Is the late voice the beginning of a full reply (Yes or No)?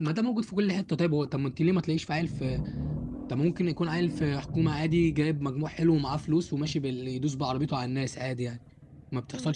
Yes